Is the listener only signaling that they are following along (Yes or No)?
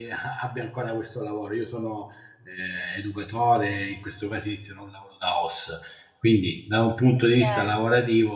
Yes